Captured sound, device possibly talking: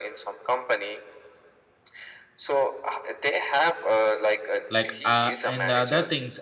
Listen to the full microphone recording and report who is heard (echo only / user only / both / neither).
both